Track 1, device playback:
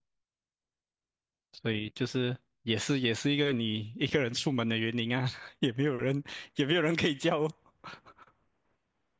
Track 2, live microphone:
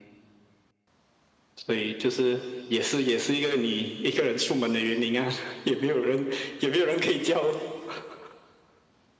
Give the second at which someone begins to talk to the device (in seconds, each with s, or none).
none